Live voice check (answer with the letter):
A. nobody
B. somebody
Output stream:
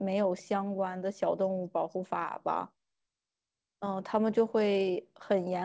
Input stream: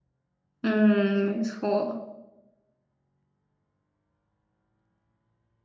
B